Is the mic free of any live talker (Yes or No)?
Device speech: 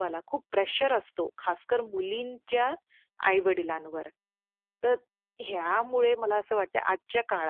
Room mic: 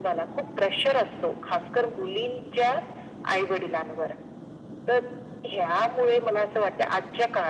Yes